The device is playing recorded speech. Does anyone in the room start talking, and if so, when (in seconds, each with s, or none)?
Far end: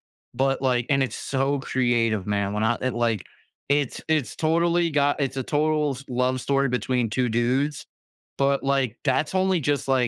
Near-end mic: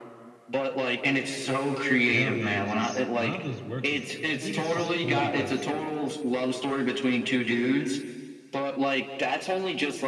2.1 s